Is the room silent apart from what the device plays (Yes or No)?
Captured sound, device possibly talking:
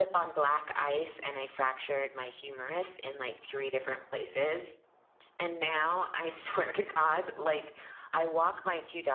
Yes